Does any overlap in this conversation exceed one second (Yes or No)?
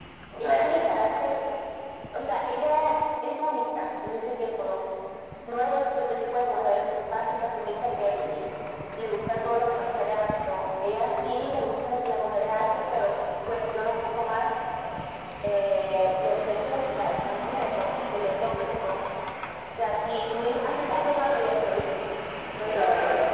No